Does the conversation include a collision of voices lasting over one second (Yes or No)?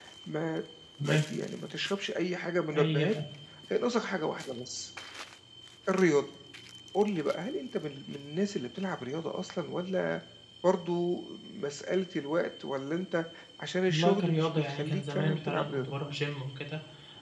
Yes